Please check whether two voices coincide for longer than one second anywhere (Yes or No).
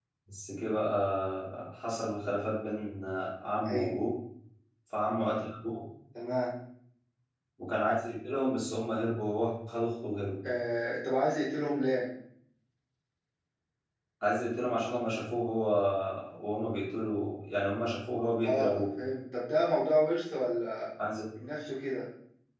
No